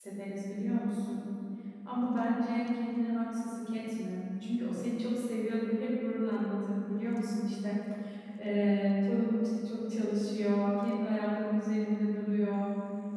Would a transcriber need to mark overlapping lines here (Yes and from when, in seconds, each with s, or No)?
No